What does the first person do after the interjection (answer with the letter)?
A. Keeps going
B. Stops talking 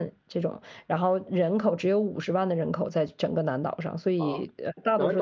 B